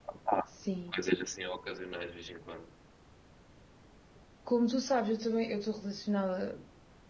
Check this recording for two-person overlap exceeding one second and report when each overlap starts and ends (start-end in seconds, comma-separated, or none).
none